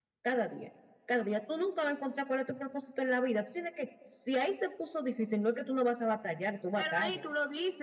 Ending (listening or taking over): taking over